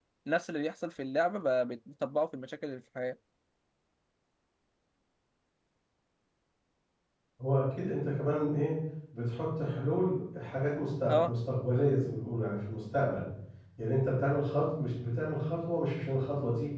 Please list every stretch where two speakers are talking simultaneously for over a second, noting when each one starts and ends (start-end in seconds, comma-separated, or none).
none